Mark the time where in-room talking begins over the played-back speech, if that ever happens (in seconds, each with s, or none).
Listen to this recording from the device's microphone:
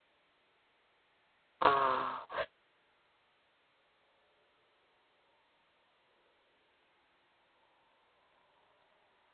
1.6 s